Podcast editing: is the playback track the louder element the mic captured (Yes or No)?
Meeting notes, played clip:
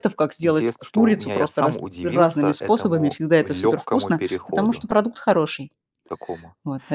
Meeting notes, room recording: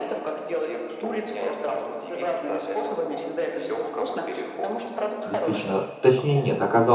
No